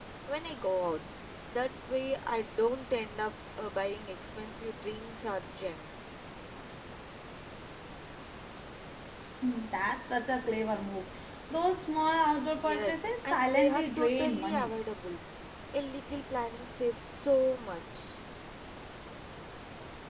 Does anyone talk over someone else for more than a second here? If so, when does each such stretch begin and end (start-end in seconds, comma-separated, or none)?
12.6-14.7